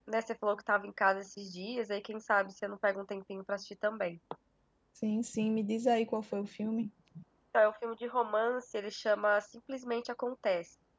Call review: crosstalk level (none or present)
none